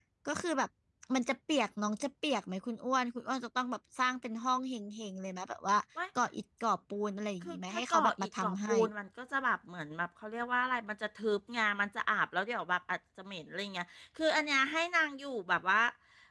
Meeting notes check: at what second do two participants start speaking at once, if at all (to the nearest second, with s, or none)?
7 s